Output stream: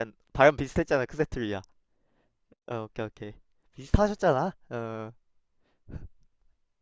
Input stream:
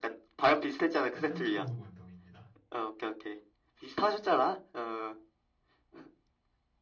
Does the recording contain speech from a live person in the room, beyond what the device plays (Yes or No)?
Yes